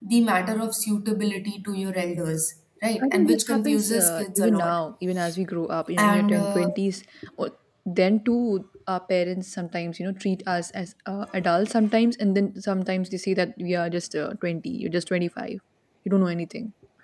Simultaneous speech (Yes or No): Yes